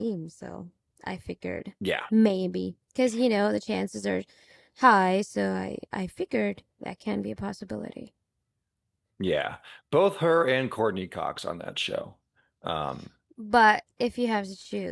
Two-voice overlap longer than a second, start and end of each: none

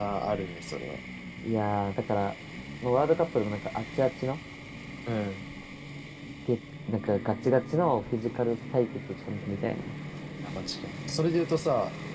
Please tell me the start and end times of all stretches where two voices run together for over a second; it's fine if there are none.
none

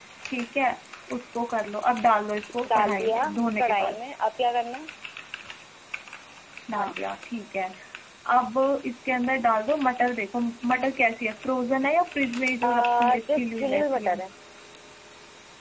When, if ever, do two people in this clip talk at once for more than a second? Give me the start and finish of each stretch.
2.7-4.0, 12.6-14.2

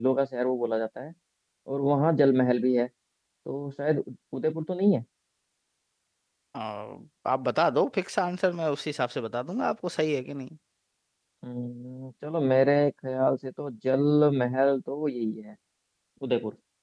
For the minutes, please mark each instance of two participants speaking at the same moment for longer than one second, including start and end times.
none

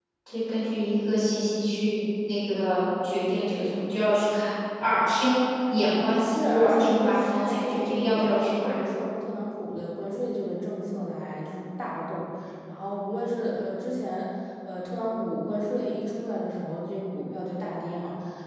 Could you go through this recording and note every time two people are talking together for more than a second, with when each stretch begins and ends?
6.3-8.7

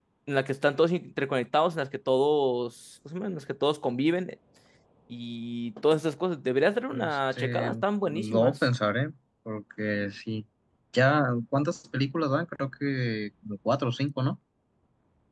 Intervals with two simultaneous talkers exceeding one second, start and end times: 6.9-8.6

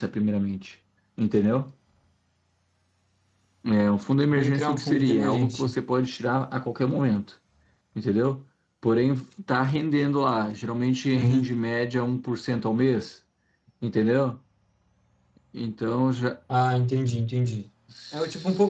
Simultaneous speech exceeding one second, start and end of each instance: 4.3-5.7

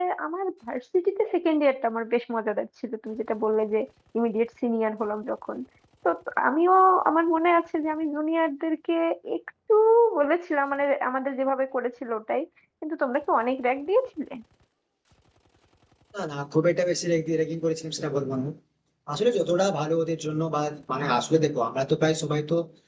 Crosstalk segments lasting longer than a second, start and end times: none

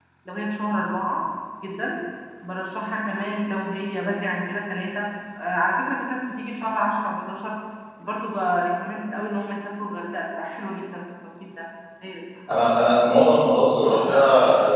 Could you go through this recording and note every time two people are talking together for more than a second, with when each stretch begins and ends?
none

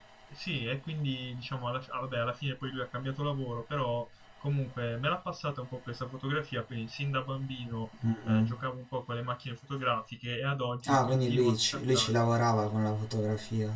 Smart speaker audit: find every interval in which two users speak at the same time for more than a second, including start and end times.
10.8-12.1

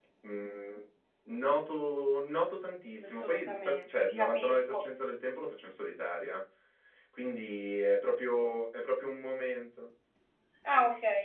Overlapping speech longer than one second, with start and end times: 3.0-4.8

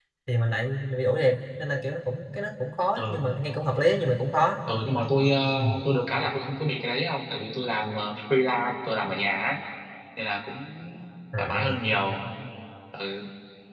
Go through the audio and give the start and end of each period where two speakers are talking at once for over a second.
none

